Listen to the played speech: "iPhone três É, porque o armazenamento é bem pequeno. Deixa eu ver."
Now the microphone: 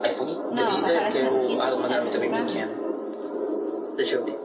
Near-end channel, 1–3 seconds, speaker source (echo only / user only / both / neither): both